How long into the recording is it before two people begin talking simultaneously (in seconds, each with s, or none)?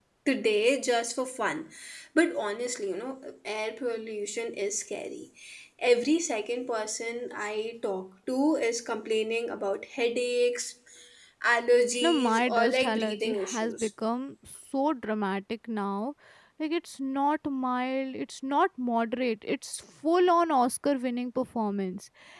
12.0 s